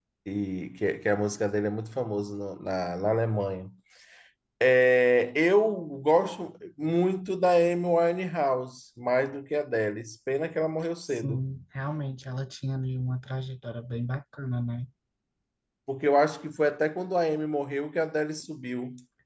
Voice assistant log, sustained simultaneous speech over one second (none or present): none